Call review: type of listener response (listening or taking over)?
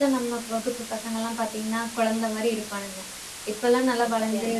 listening